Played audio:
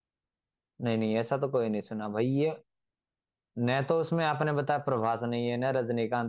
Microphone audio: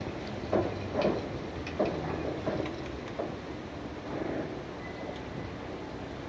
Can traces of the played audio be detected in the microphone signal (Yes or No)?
No